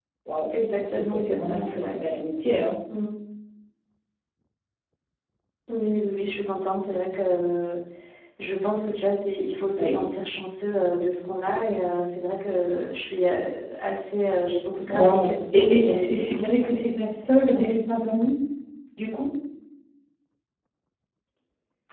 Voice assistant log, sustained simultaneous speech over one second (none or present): present